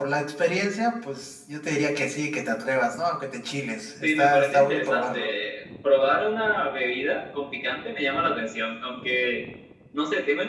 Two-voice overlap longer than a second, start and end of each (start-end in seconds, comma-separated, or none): 4.0-5.3